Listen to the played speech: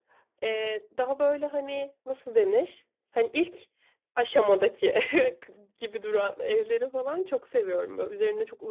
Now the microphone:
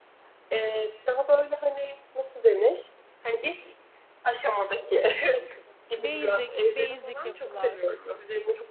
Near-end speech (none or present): present